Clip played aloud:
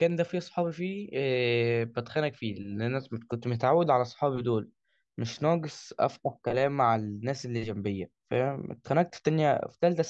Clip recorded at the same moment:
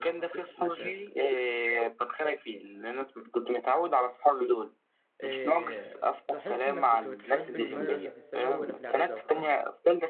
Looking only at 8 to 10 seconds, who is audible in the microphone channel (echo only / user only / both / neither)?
both